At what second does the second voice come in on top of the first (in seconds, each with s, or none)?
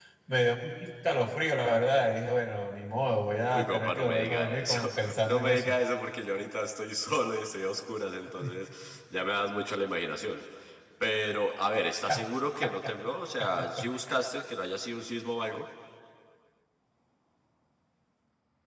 3.5 s